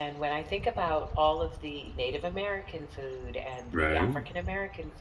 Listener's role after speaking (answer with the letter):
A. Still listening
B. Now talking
A